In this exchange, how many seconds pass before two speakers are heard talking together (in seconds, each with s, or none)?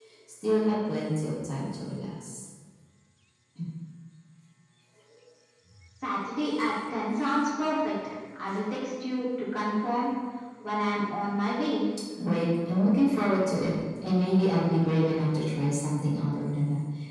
none